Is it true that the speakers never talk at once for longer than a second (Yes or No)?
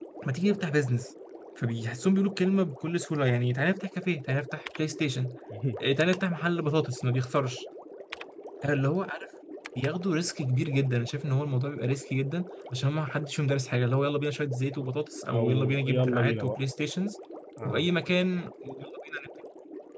No